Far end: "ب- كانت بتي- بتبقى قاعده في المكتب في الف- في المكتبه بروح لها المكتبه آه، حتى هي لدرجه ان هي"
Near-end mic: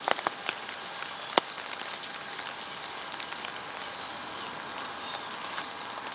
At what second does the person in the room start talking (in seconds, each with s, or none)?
none